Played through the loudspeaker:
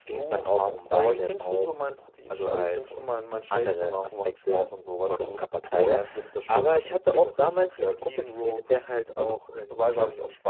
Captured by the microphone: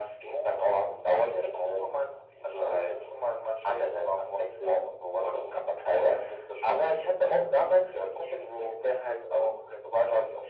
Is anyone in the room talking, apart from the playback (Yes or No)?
No